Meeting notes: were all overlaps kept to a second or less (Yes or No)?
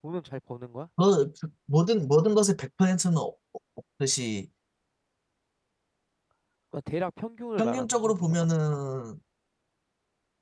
No